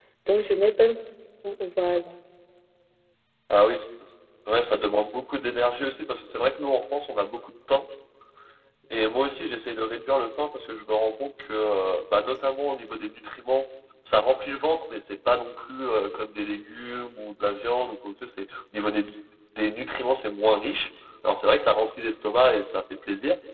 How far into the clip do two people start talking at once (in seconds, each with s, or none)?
none